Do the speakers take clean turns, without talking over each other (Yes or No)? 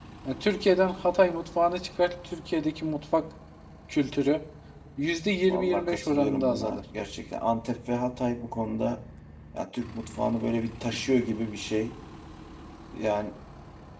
No